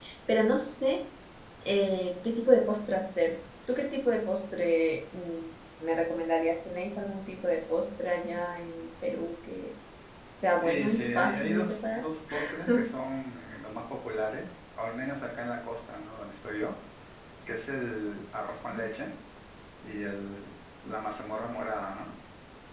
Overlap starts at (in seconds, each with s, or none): 10.6 s